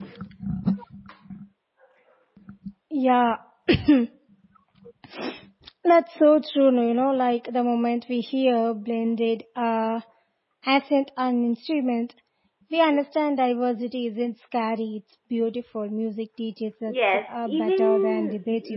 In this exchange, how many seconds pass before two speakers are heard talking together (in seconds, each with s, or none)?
16.9 s